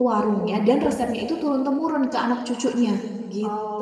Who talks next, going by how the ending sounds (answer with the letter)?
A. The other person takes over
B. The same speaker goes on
A